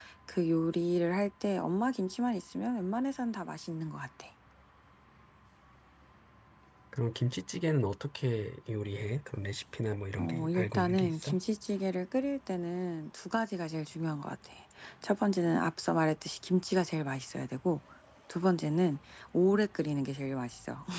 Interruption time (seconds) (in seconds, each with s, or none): 10.2 s